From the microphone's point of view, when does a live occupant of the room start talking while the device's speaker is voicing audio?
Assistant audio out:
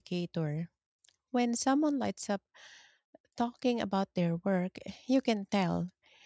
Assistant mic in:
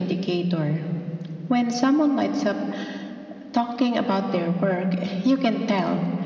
none

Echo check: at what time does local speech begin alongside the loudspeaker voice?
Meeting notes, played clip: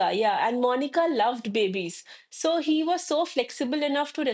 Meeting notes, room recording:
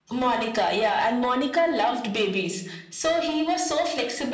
none

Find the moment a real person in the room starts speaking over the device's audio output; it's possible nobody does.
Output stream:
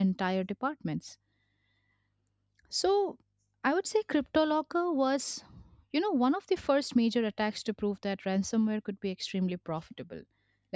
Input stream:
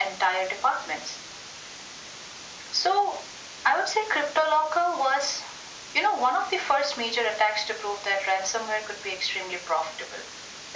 none

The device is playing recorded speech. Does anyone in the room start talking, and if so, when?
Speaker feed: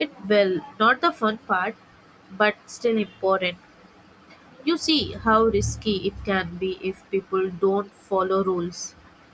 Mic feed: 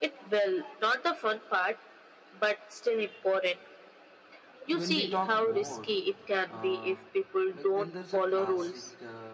4.7 s

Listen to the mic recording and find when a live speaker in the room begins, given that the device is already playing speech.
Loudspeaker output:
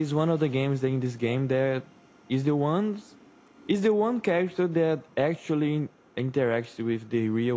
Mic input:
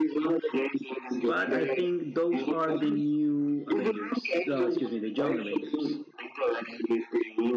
1.1 s

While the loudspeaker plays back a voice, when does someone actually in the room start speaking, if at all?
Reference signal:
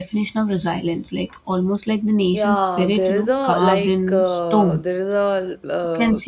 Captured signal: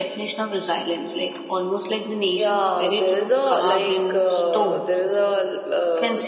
none

